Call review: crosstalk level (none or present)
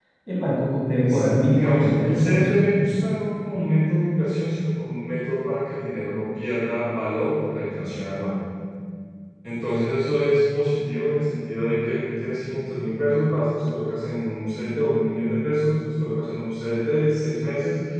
present